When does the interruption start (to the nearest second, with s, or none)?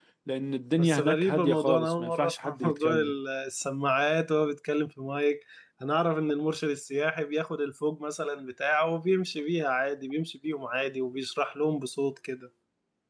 1 s